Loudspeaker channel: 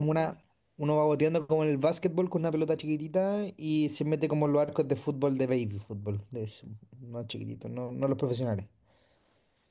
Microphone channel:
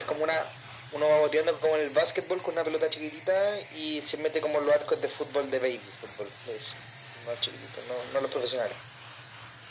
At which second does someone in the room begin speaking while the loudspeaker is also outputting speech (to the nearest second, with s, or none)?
none